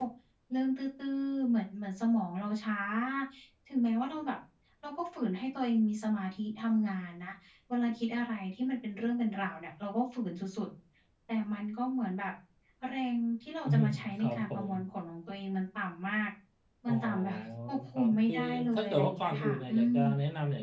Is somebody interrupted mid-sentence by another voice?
Yes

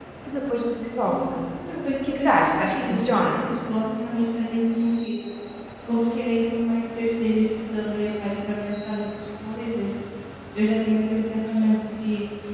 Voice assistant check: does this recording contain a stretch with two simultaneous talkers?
Yes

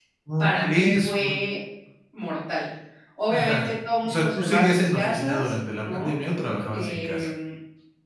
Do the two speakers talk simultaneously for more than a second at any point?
Yes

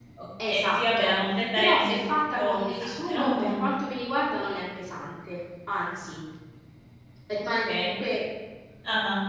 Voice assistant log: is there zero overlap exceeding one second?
No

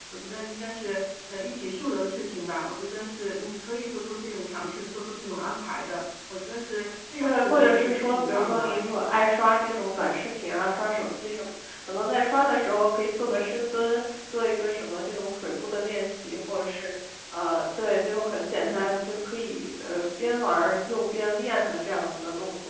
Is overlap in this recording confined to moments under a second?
No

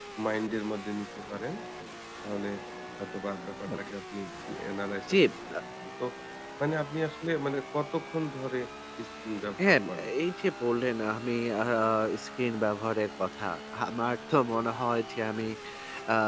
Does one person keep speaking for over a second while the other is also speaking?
No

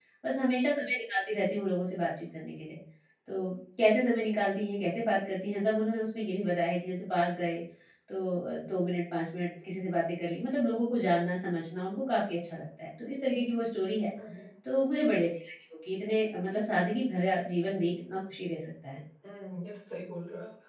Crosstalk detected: No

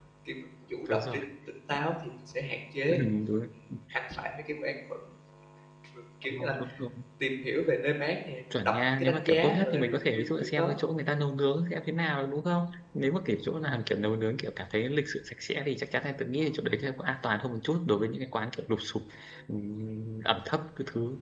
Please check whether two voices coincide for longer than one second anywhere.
Yes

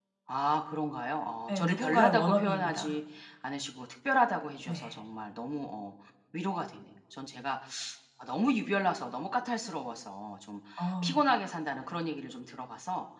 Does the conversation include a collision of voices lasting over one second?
Yes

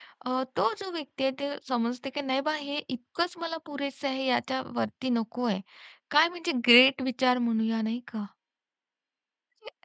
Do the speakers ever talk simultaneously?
No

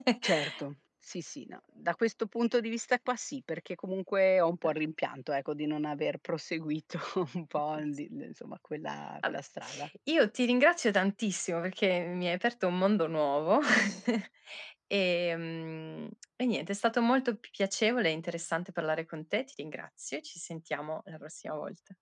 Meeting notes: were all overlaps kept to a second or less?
Yes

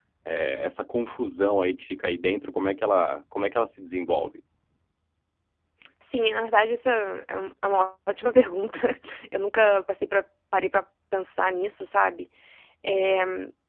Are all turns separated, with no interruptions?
Yes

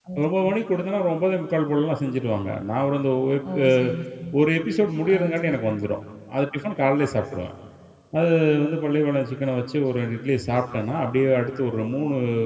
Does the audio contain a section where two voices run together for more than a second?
No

